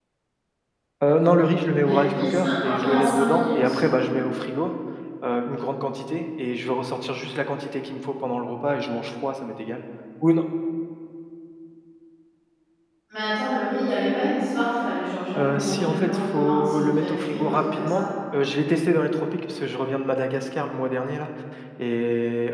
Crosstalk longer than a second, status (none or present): present